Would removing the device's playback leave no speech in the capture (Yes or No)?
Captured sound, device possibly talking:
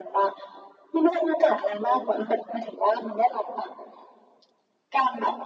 Yes